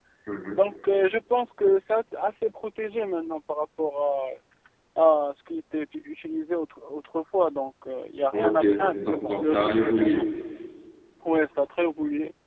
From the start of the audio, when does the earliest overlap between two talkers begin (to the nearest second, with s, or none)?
8 s